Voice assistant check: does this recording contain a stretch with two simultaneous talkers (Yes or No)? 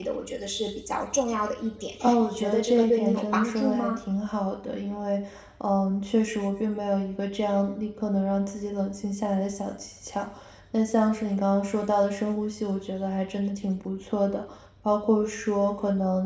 Yes